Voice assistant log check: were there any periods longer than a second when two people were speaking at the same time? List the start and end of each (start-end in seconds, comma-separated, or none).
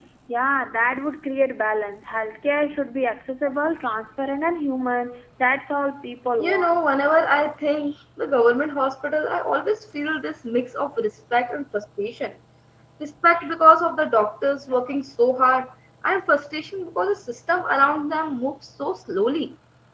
none